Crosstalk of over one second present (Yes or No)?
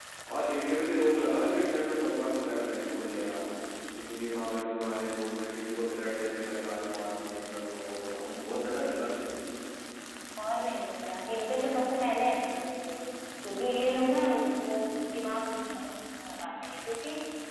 No